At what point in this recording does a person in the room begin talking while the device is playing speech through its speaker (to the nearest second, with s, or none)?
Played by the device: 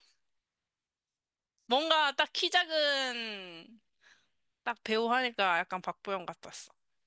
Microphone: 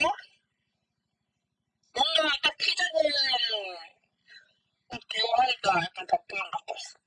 none